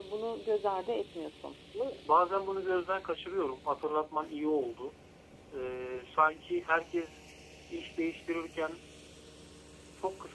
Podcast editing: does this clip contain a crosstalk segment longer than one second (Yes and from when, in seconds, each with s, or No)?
No